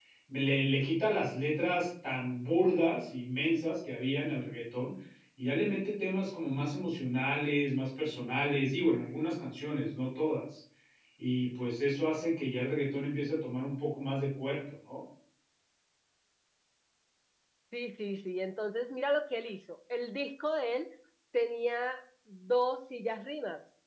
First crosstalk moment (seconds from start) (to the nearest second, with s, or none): none